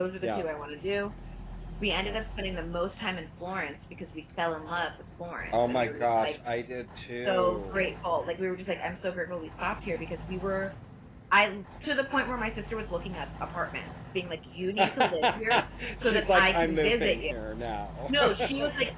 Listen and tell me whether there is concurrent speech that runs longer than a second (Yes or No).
Yes